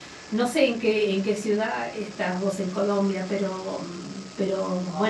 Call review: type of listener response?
taking over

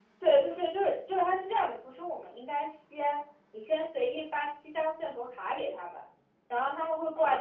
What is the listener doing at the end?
listening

